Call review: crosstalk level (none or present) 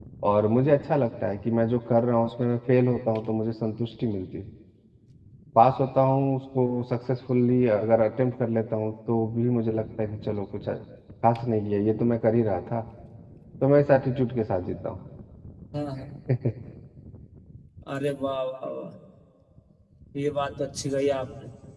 none